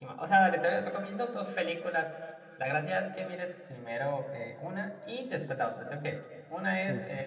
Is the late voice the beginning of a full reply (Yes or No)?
No